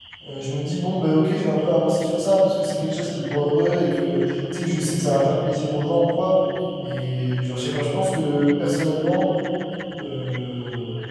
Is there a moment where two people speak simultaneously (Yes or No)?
No